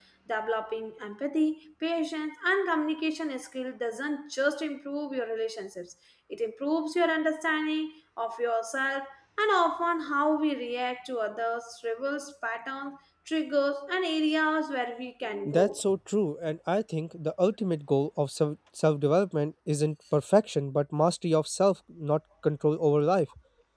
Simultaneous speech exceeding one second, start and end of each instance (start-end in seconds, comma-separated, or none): none